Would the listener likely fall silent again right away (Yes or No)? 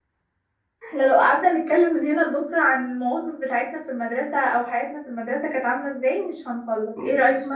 Yes